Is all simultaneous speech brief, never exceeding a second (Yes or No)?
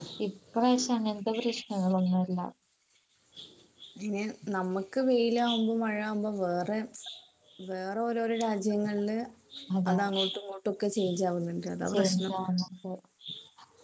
Yes